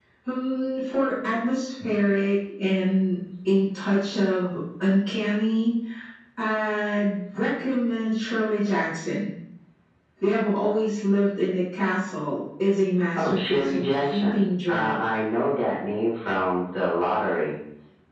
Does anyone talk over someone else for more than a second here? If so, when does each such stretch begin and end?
13.2-15.0

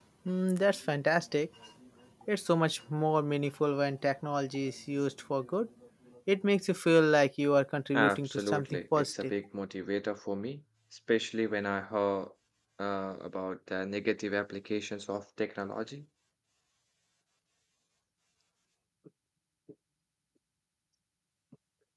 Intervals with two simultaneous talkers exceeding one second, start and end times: 7.9-9.3

